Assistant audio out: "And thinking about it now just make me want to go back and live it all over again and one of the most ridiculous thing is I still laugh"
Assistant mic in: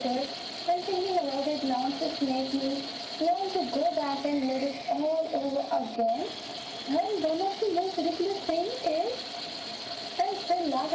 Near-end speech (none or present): none